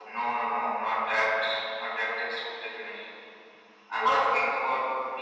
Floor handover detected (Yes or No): No